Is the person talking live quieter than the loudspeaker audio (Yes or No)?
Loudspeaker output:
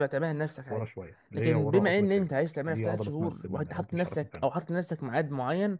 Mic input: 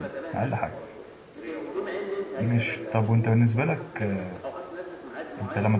No